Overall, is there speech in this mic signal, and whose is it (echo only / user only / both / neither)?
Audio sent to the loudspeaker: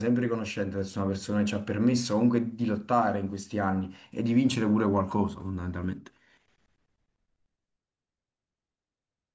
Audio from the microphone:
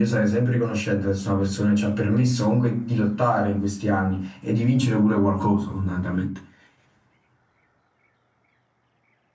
echo only